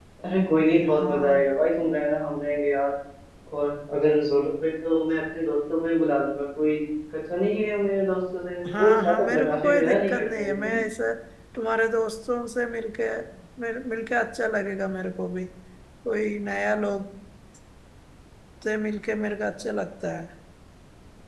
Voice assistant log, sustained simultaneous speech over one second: present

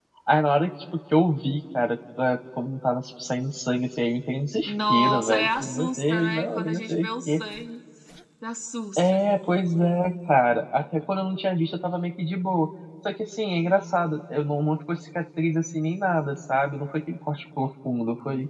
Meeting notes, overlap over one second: present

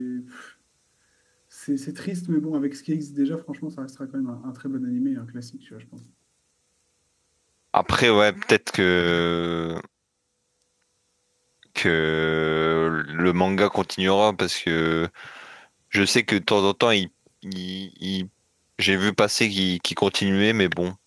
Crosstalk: none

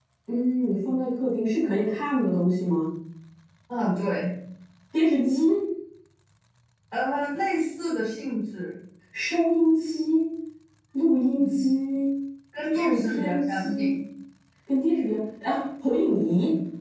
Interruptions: present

